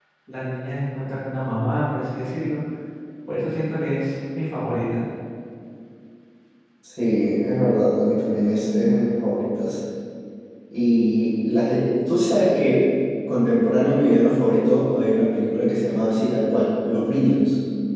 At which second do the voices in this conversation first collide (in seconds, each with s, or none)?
none